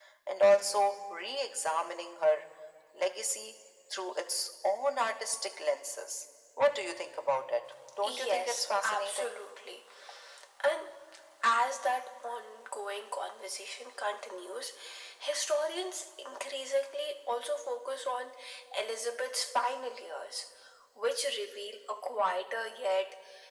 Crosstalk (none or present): present